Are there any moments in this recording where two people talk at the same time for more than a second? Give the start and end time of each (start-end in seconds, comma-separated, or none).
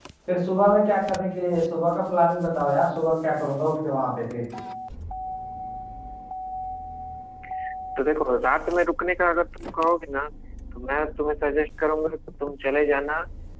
none